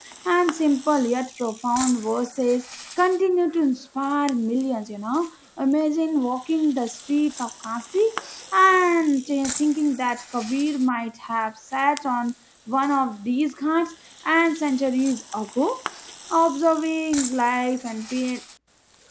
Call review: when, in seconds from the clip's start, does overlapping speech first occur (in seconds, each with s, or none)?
none